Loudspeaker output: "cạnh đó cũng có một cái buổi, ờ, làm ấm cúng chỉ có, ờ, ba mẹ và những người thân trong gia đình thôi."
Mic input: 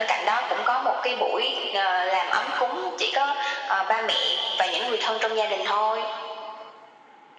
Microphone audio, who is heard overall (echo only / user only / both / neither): echo only